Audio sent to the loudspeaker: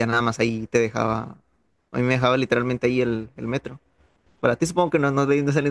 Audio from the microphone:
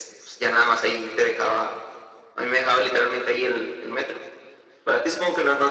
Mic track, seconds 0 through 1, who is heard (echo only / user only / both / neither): echo only